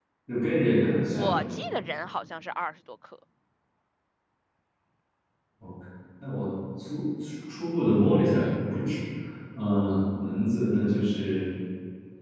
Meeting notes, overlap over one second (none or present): none